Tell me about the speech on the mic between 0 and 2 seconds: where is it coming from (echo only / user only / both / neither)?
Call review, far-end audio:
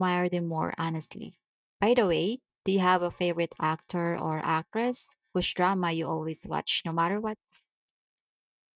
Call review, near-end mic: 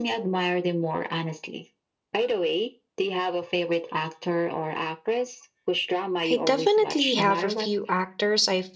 echo only